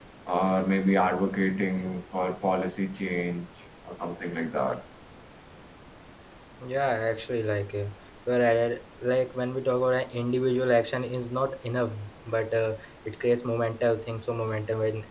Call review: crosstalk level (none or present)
none